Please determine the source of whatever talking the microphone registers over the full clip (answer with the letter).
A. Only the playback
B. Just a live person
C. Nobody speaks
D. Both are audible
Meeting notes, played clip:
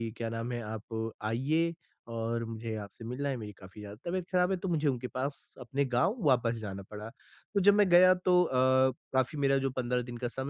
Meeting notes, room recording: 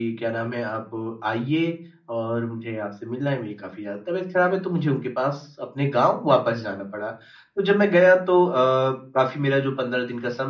A